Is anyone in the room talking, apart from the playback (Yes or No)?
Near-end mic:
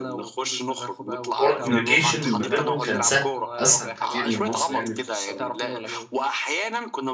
Yes